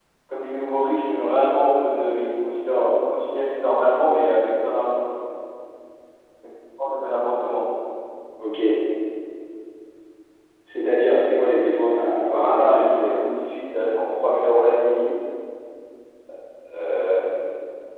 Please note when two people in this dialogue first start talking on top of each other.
11.9 s

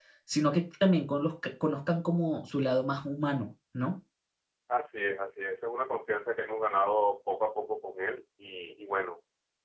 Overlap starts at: none

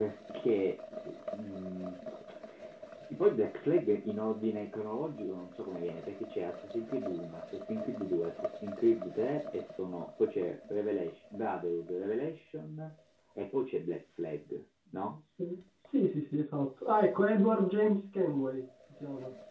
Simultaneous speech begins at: none

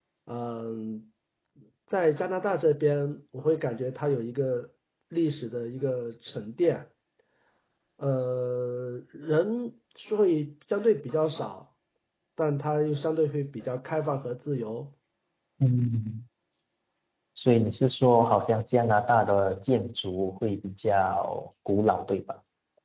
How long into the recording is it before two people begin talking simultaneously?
none

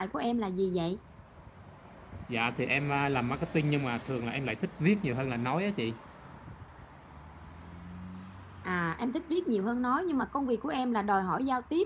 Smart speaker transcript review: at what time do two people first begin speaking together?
none

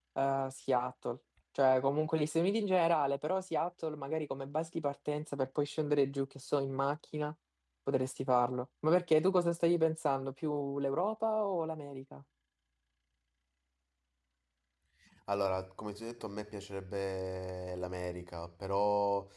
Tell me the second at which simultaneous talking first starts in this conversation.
none

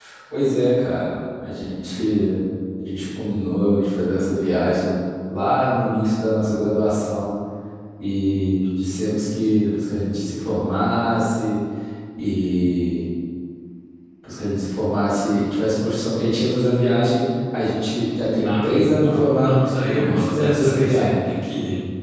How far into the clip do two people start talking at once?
18.2 s

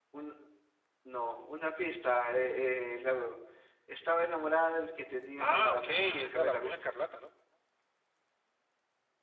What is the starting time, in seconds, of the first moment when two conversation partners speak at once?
5.4 s

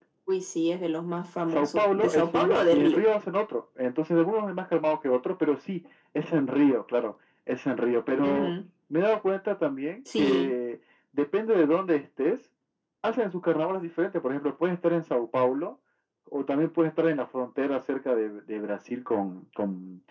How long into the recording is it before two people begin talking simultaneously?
1.5 s

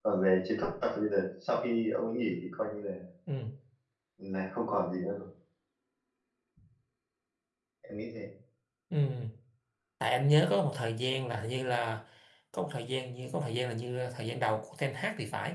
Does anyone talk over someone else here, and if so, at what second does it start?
none

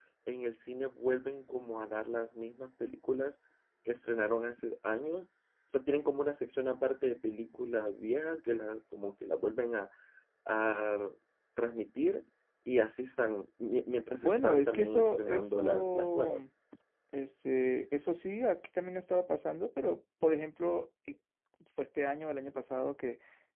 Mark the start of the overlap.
14.2 s

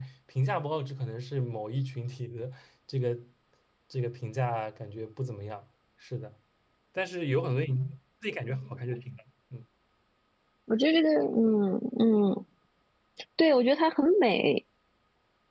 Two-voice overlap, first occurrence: none

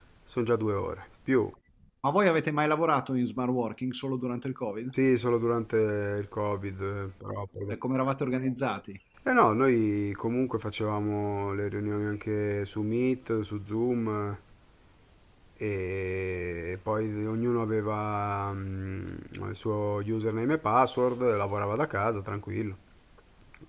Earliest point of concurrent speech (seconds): none

